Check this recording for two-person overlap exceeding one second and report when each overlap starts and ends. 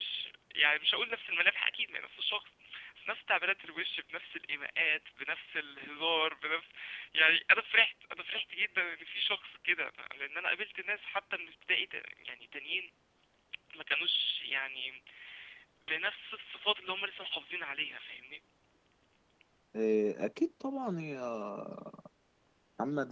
none

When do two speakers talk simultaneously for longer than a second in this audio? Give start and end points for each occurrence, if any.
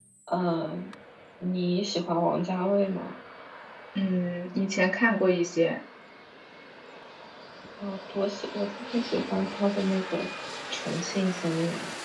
none

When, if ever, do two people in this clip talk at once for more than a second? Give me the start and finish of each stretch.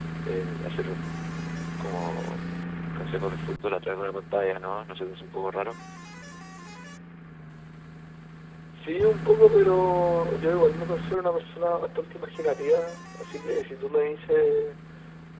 none

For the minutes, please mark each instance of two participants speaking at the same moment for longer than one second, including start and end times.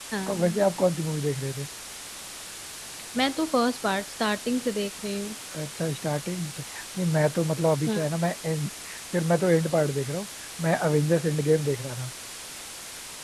none

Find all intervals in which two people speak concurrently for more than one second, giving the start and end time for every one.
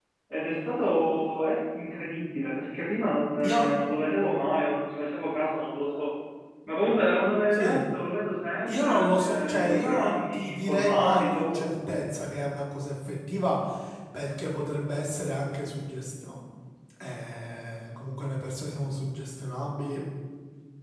8.7-11.6

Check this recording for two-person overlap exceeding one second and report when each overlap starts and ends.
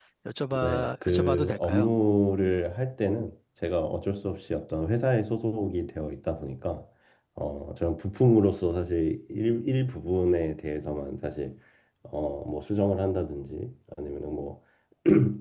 0.6-1.9

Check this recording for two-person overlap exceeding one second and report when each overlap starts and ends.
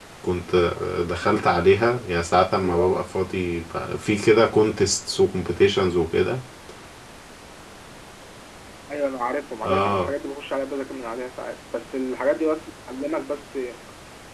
none

